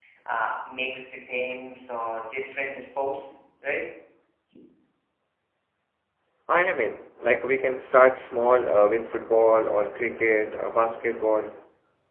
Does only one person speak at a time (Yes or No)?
Yes